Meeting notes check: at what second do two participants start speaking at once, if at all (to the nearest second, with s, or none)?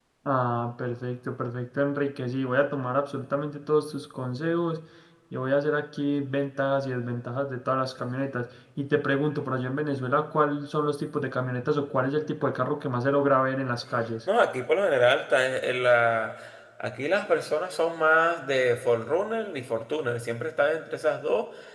none